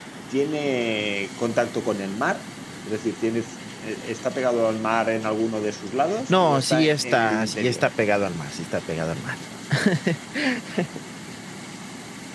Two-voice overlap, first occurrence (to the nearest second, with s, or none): 6 s